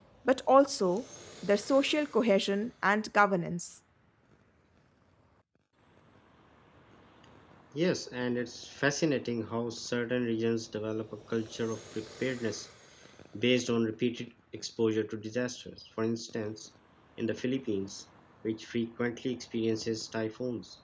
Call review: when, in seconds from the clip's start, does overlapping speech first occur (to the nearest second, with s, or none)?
none